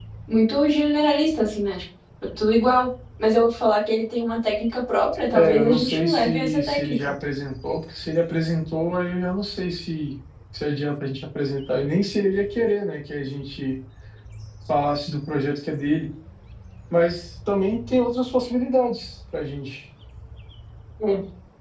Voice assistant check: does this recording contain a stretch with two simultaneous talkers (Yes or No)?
Yes